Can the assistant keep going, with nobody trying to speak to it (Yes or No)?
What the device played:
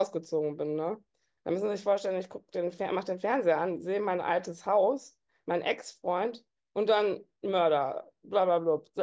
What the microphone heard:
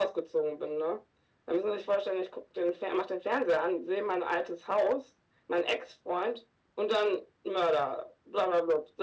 Yes